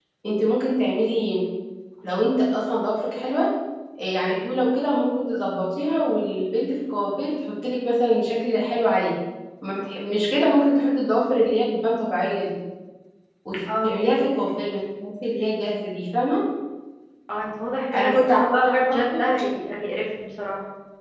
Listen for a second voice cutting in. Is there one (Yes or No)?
Yes